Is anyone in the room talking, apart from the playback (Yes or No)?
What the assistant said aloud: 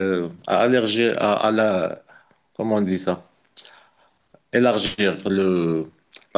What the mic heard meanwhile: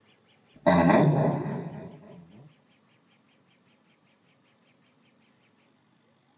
Yes